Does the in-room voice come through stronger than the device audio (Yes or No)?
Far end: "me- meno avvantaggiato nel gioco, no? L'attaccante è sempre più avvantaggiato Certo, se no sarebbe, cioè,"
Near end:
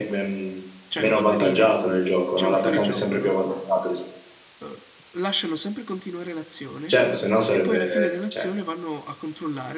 No